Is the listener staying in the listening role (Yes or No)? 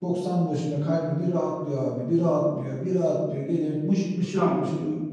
No